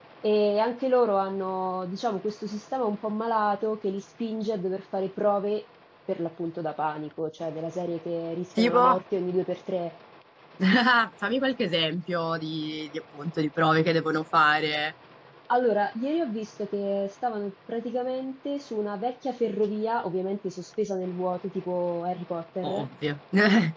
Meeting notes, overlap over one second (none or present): none